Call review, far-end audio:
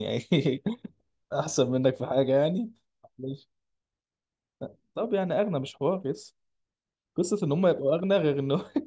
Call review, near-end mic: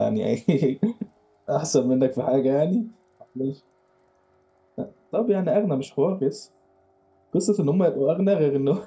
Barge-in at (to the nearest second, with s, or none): none